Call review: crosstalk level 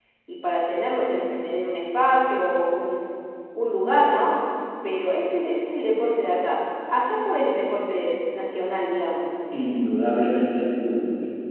none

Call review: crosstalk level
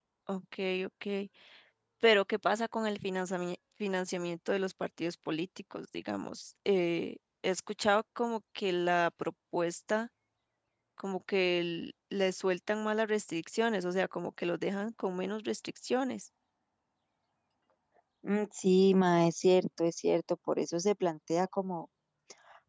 none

